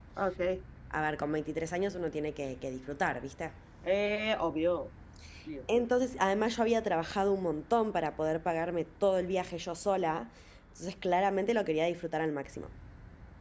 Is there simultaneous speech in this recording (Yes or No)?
No